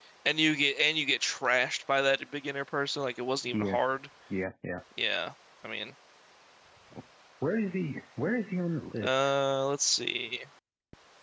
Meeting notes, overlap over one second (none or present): none